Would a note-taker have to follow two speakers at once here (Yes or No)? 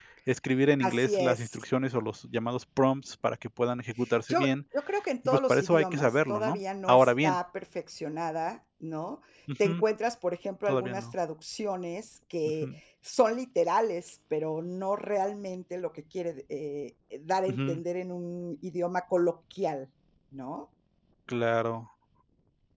Yes